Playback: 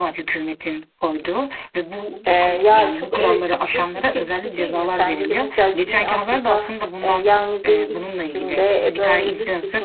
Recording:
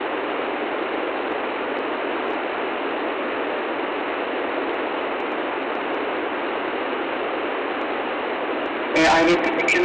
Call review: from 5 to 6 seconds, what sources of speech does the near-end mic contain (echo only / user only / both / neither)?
neither